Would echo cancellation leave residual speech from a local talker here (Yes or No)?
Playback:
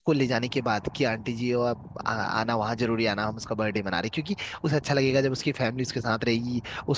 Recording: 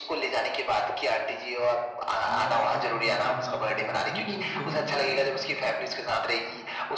Yes